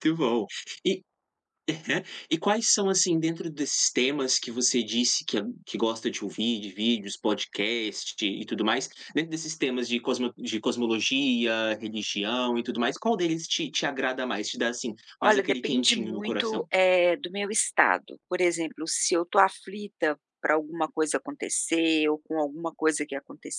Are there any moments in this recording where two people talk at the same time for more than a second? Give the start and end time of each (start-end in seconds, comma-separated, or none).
15.2-16.6